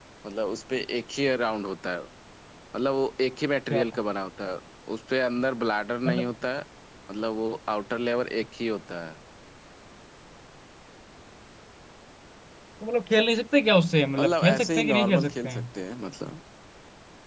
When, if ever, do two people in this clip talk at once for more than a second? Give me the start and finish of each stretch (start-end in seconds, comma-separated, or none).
14.2-15.6